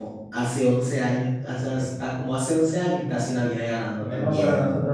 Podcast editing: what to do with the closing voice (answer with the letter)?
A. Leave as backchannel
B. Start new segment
B